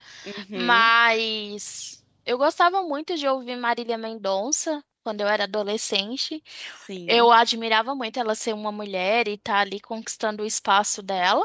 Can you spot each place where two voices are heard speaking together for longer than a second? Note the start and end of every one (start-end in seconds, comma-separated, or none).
none